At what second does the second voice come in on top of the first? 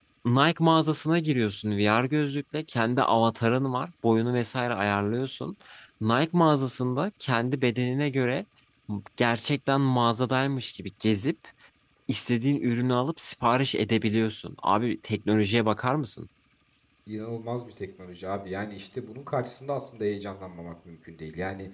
none

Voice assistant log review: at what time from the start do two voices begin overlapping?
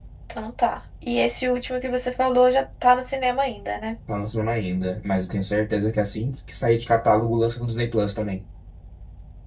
none

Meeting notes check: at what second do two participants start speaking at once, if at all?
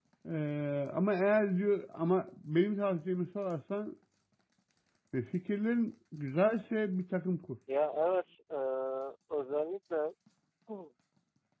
none

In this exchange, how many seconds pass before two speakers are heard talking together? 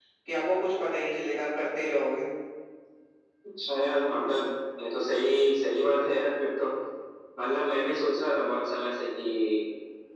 none

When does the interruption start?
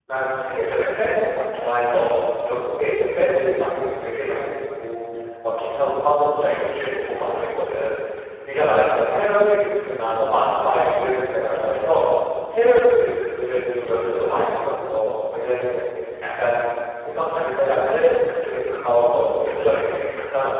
none

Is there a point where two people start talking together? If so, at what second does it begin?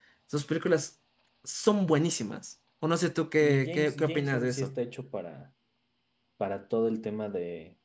3.4 s

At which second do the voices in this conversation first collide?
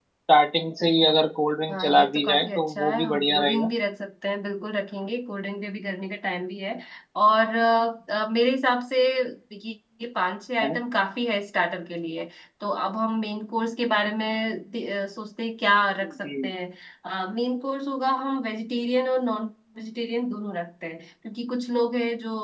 1.7 s

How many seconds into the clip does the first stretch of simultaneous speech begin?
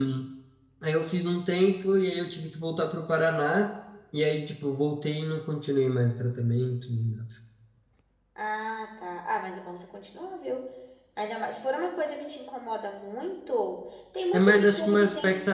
14.3 s

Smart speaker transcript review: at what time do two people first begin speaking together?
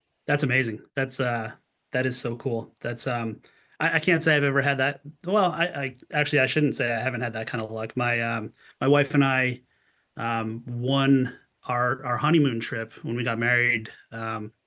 none

